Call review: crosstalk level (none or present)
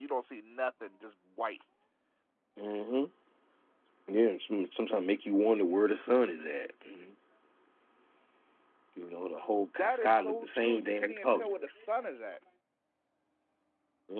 present